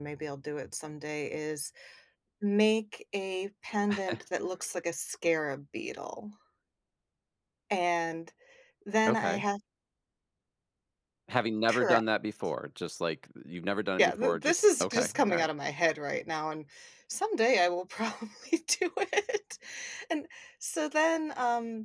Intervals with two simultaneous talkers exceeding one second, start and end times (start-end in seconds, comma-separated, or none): 14.0-15.5